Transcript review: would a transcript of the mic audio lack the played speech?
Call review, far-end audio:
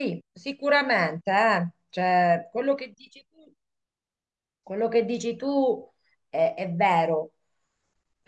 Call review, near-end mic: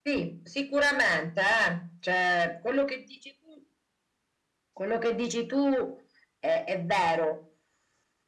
No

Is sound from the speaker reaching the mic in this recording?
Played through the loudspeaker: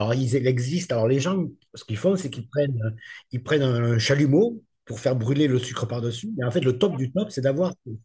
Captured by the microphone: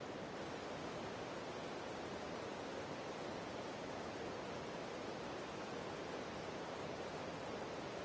No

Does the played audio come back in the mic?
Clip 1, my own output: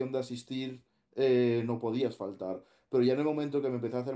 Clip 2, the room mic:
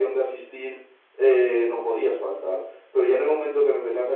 Yes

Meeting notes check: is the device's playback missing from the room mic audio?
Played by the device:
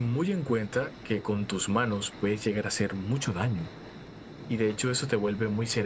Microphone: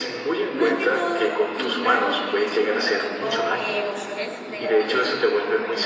No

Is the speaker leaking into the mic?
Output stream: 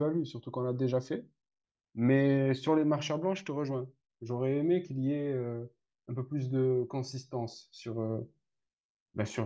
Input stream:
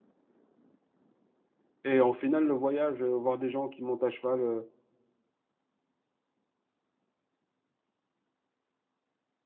No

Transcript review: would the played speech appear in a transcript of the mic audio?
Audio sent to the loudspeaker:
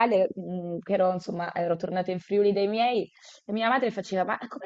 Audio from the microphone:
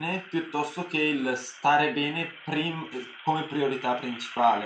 No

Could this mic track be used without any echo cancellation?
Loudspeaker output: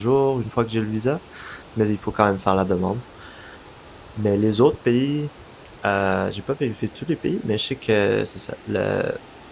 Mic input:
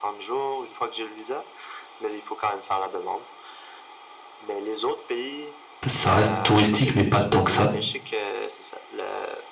No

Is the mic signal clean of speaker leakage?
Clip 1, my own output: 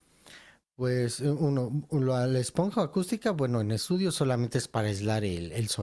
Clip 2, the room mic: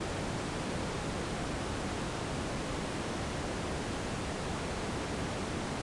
Yes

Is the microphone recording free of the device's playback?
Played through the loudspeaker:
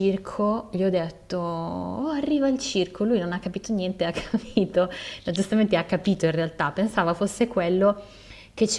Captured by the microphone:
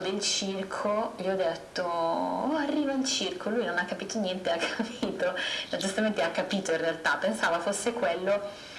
No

